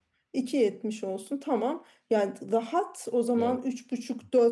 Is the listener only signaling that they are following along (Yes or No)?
Yes